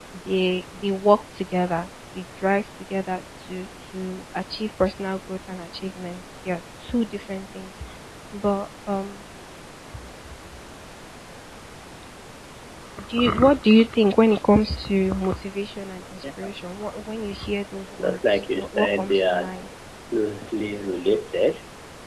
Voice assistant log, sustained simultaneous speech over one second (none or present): present